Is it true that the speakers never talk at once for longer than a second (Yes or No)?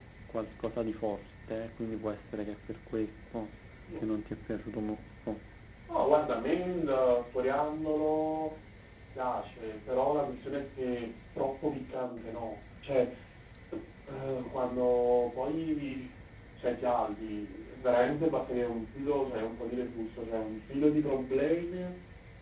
Yes